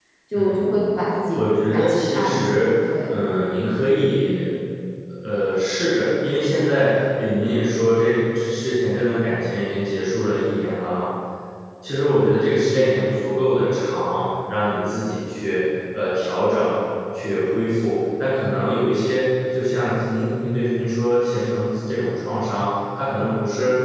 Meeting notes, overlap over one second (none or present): present